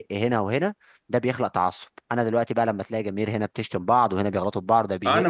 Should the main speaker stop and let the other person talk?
Yes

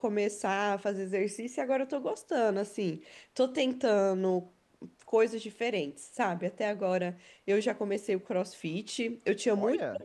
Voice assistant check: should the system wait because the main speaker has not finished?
Yes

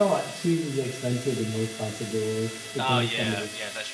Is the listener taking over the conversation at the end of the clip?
Yes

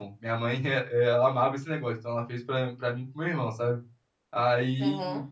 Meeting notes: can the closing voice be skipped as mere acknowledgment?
Yes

